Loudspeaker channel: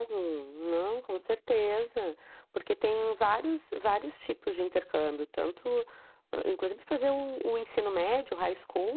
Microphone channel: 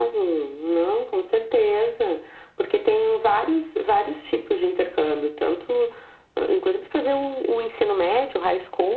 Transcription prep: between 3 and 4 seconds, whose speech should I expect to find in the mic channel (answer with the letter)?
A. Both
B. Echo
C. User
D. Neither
B